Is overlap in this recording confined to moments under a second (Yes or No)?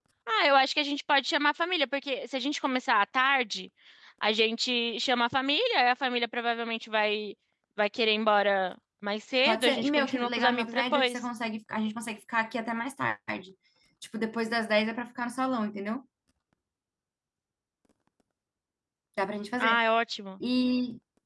No